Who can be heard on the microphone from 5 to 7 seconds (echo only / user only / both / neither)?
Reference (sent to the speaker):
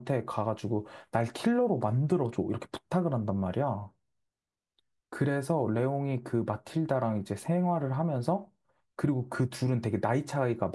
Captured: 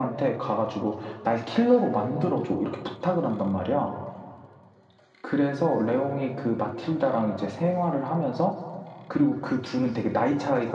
echo only